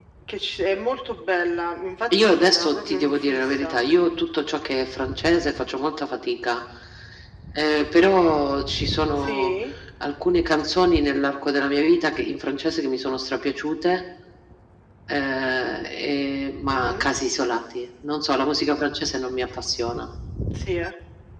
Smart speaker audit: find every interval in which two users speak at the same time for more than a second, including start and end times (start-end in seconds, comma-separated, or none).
2.2-3.8